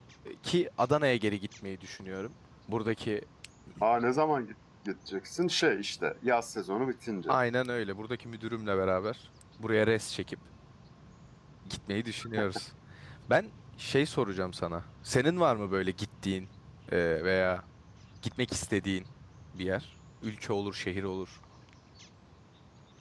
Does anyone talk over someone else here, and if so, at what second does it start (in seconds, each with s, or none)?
none